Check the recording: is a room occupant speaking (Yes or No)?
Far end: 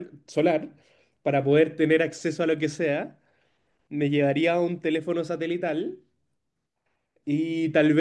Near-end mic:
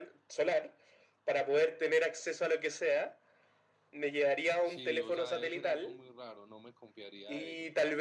Yes